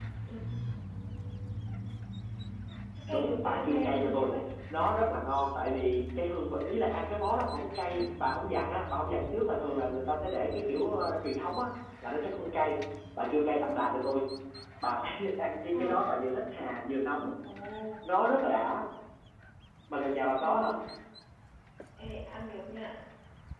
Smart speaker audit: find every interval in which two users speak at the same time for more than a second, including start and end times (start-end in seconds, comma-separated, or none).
3.1-4.3